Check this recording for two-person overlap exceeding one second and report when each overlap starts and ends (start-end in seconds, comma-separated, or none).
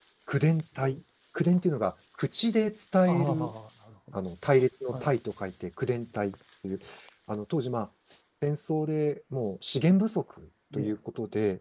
none